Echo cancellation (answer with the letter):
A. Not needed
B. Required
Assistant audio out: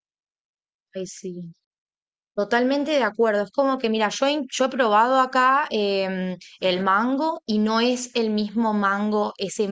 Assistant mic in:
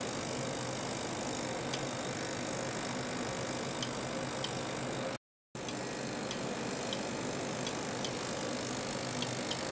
A